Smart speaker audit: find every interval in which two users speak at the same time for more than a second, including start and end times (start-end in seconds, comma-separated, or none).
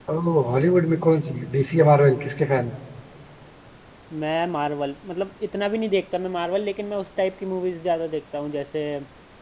none